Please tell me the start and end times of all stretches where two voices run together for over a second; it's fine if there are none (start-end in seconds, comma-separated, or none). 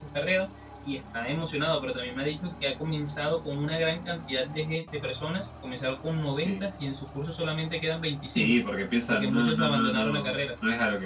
9.1-10.4